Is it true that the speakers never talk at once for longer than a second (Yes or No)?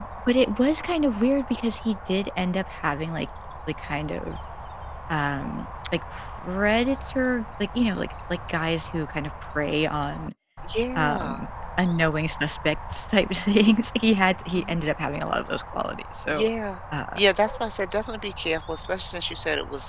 Yes